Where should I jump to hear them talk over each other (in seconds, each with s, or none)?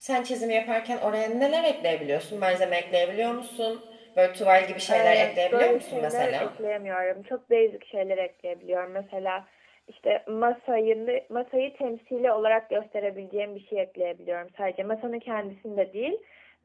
4.9 s